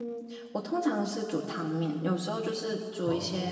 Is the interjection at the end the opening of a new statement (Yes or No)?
No